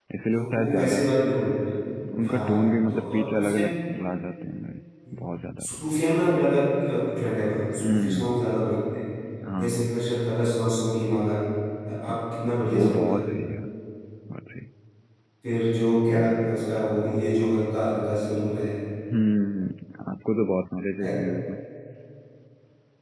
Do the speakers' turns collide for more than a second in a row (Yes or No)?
Yes